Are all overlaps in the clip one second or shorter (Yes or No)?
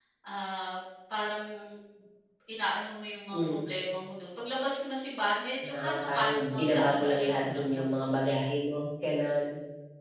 No